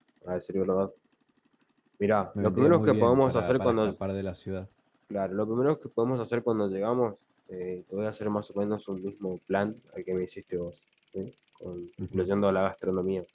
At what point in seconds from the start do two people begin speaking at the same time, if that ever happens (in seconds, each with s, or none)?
2.4 s